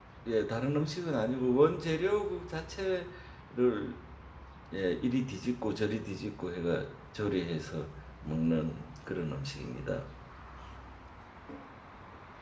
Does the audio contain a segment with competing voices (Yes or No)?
No